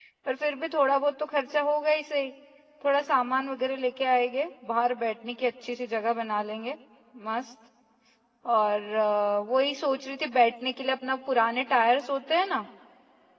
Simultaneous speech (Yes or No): No